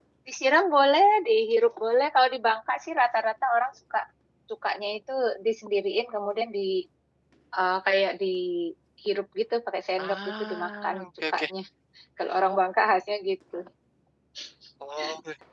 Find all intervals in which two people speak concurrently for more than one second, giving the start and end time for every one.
10.0-11.4

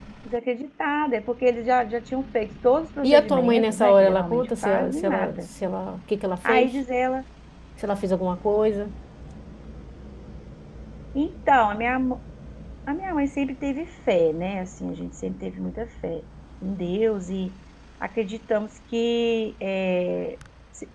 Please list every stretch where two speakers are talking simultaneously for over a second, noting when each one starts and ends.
3.0-5.4

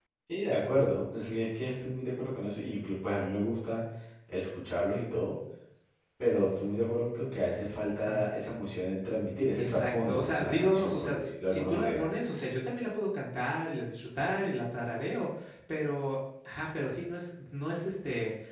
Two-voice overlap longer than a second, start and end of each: 9.6-12.0

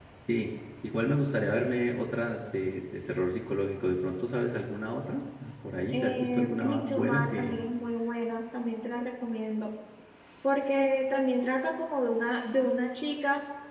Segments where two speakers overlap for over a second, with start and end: 5.9-7.7

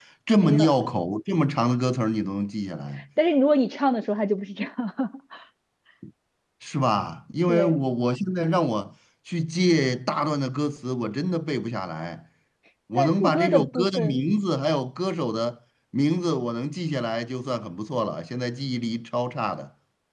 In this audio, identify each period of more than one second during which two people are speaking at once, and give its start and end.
12.9-14.2

